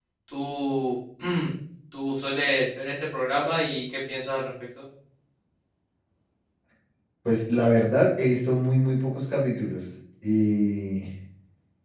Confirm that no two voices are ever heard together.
Yes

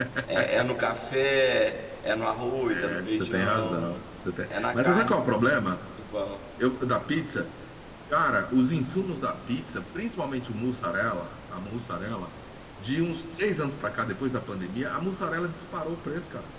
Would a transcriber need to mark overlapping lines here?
Yes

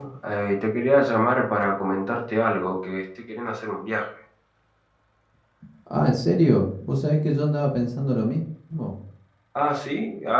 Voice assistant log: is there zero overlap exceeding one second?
Yes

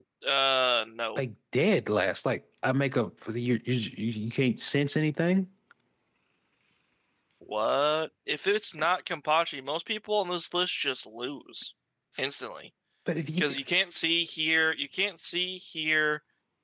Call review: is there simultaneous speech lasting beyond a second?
No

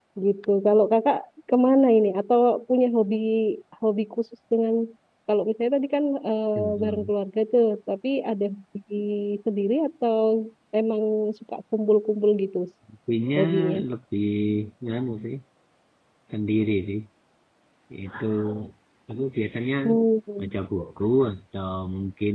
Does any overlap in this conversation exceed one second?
No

